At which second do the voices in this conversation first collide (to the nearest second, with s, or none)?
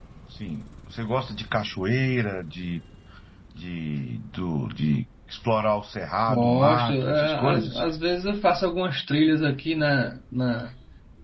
6 s